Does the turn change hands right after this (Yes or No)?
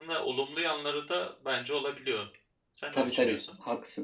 Yes